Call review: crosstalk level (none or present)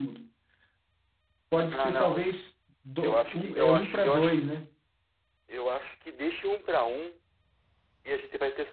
present